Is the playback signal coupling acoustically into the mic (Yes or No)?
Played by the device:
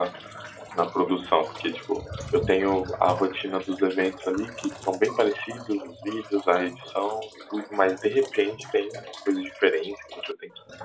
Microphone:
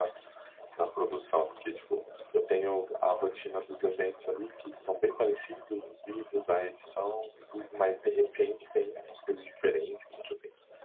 Yes